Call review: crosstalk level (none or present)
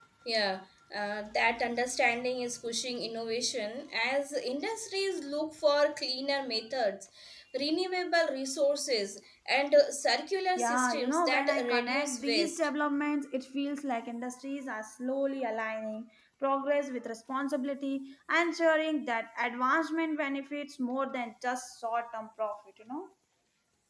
present